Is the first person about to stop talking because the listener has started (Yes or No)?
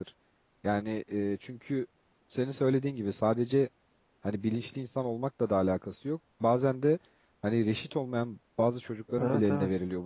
No